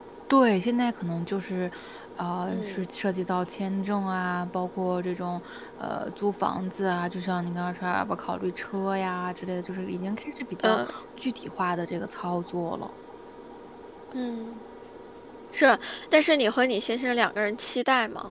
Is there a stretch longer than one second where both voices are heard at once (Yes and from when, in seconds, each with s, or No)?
No